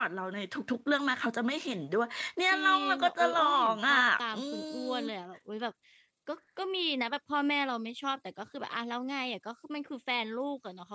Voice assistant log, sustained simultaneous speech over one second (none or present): present